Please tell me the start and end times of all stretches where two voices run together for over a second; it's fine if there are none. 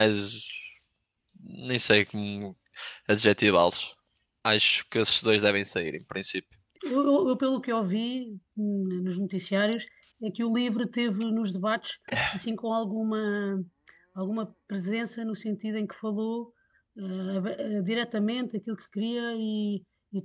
none

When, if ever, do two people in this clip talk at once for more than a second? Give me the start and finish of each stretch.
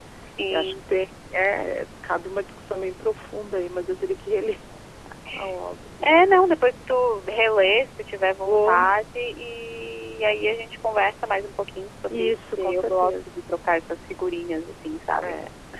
12.1-13.3

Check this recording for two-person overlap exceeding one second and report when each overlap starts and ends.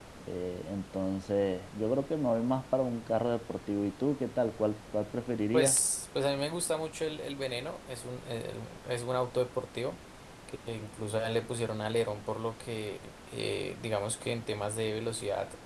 none

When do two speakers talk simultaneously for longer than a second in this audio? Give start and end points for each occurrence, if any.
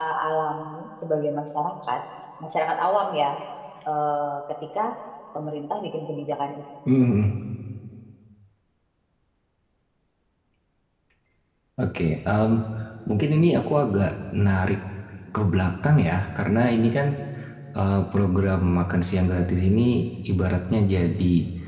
none

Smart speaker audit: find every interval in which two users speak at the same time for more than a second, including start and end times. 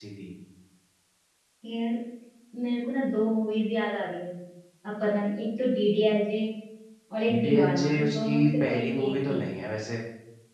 7.3-9.4

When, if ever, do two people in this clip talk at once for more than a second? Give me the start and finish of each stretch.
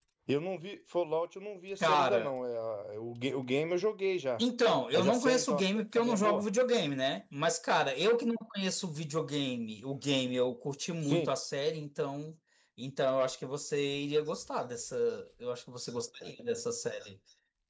4.9-6.4

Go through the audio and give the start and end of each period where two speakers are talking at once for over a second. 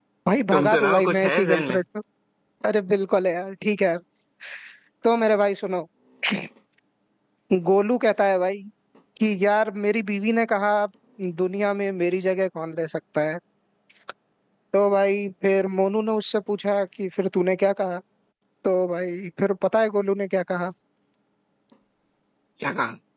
0.5-1.8

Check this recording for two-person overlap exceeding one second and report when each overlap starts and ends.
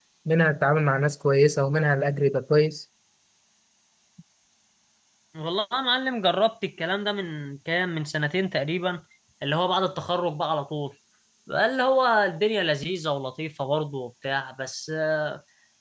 none

